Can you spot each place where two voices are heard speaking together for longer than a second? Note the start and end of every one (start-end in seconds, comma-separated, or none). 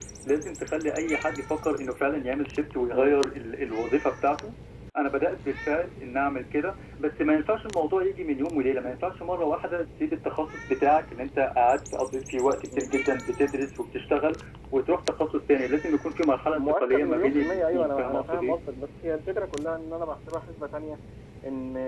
16.5-18.6